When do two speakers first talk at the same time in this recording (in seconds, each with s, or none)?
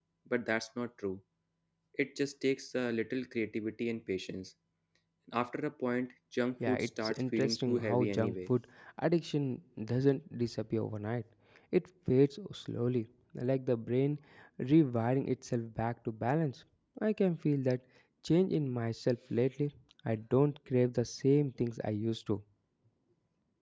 6.6 s